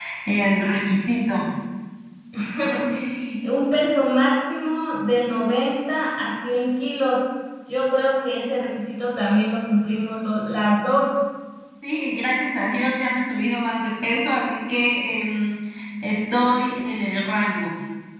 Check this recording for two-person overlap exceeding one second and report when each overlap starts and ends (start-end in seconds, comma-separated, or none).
none